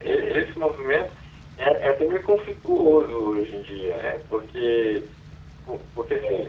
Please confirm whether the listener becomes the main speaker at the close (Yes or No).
No